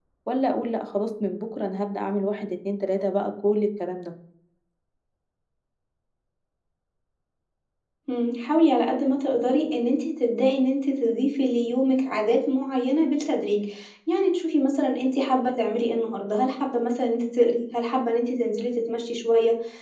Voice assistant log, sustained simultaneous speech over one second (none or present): none